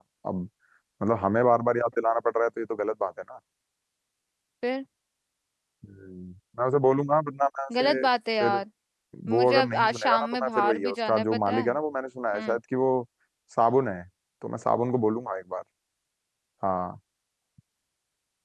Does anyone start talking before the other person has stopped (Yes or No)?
Yes